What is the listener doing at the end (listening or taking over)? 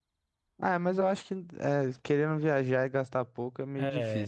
taking over